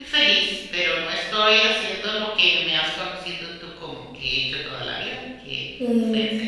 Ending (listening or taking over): taking over